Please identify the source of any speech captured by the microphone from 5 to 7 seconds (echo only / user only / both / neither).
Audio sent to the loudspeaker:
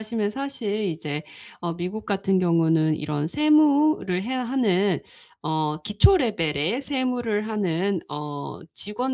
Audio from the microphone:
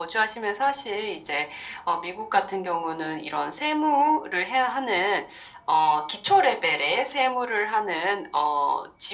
echo only